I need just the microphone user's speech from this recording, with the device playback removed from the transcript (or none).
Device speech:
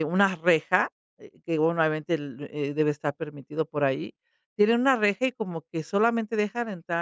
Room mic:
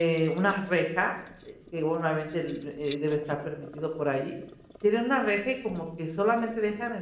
none